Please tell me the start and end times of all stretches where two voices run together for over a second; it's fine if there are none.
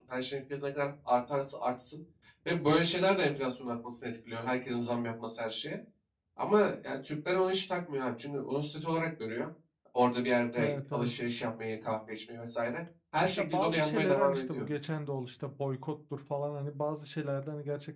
13.4-14.7

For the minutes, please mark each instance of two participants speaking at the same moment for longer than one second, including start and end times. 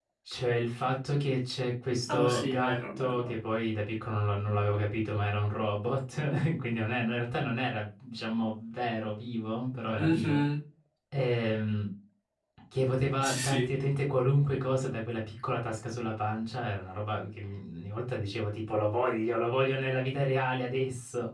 2.1-3.4

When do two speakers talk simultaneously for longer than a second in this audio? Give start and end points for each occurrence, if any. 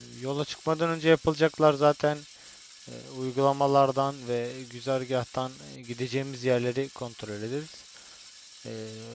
none

